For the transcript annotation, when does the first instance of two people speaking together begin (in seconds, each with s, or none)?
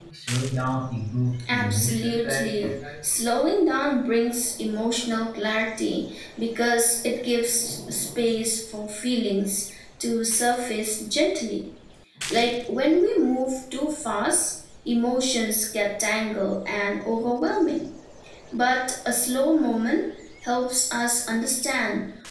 1.4 s